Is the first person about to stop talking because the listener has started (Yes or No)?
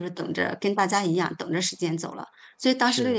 No